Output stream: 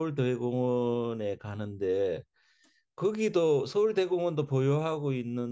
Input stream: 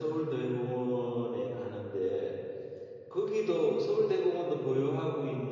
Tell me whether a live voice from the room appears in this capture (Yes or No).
No